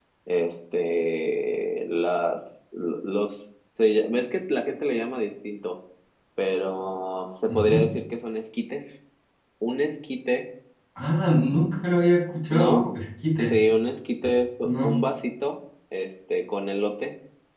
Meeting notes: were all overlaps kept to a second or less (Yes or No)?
Yes